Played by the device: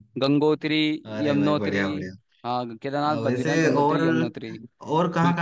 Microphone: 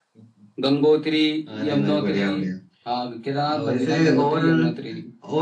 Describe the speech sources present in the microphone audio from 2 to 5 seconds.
echo only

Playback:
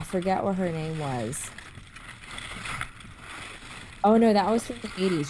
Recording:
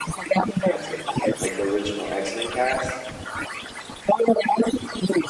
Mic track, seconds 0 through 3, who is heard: both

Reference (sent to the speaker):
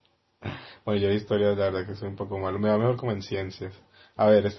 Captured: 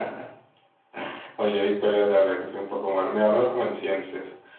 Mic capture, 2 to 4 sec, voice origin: echo only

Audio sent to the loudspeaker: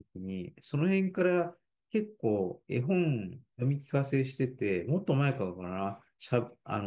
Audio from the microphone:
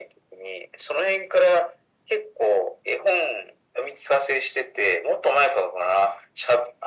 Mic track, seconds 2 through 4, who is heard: echo only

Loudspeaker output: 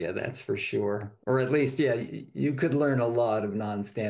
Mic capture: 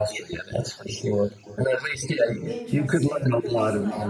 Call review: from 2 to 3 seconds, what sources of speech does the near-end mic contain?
both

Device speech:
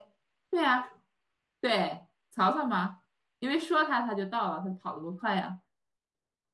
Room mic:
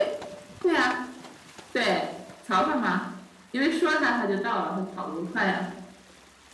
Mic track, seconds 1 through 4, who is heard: echo only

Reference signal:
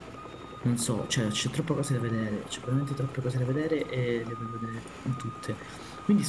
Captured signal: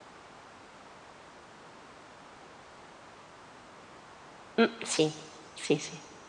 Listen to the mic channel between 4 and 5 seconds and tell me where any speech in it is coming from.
user only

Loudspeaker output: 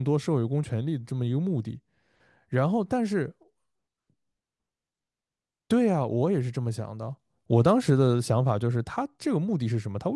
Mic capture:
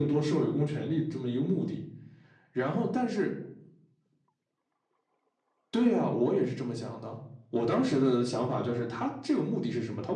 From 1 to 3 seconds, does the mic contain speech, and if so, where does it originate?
echo only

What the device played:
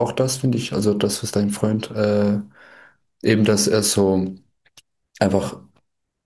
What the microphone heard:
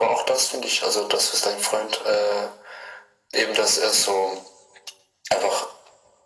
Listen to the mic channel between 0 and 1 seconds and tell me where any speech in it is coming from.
echo only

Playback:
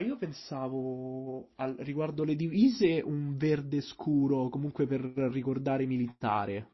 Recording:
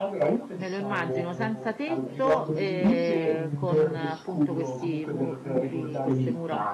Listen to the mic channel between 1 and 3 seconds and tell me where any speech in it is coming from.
both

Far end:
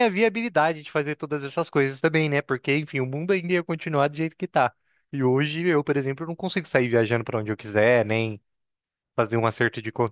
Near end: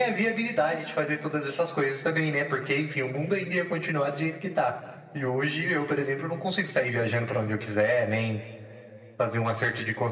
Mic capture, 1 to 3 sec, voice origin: echo only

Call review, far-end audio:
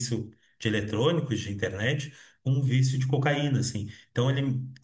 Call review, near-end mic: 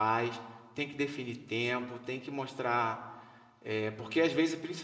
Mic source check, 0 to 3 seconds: user only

